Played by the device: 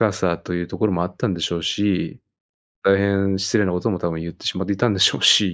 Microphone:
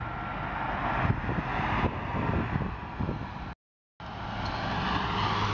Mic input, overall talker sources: neither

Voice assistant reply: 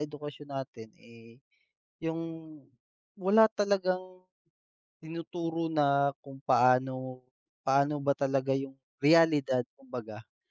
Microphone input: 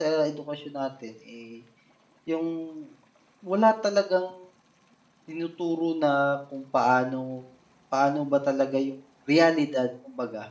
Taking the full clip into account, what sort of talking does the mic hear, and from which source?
echo only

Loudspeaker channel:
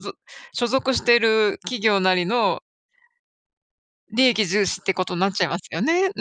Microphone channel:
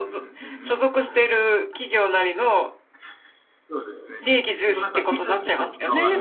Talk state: both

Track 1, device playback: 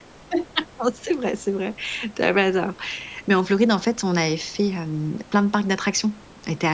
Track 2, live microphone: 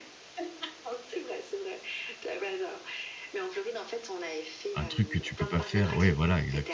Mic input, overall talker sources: both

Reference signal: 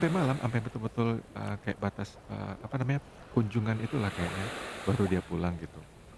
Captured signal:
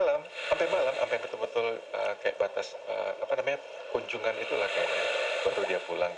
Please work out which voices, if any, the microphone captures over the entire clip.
echo only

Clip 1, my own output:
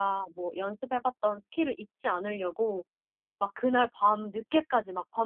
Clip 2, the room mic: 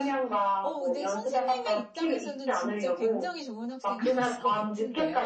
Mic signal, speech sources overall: both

